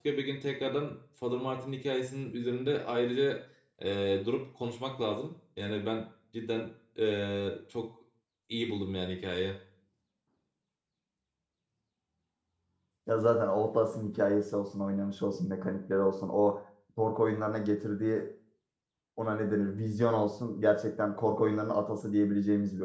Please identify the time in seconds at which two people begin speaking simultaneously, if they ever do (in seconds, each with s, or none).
none